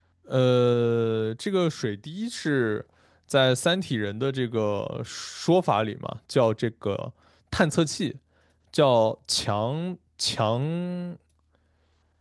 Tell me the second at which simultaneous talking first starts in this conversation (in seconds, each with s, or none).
none